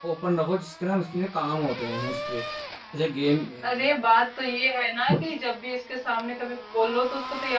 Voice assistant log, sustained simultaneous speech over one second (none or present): none